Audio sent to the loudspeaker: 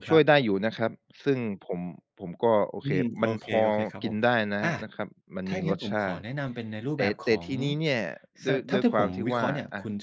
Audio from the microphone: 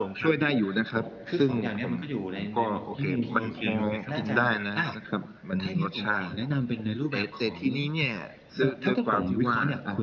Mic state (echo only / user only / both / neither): both